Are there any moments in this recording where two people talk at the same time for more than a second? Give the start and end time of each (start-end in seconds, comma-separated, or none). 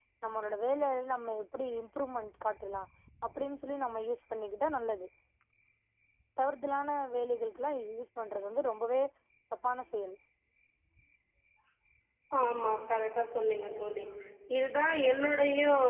none